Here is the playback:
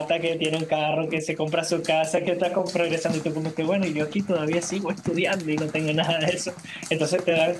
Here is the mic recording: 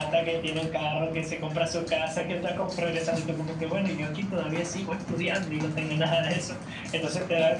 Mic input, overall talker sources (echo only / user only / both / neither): echo only